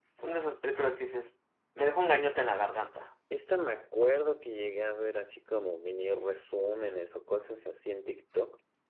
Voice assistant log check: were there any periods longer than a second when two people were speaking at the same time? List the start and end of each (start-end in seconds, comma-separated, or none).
none